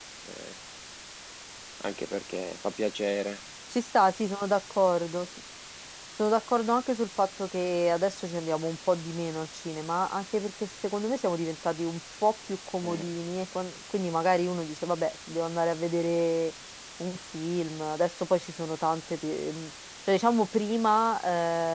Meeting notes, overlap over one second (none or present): none